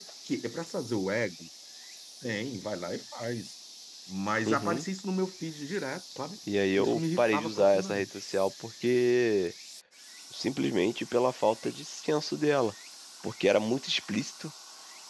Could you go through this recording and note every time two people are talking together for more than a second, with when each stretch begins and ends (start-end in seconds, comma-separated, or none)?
6.8-8.1